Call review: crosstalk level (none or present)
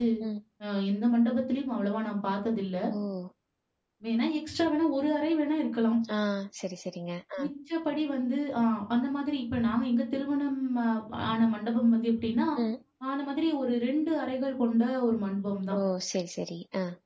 none